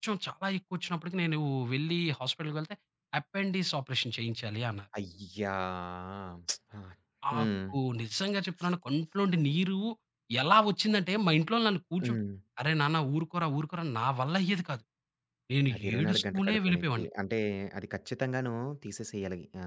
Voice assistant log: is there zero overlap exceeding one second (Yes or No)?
No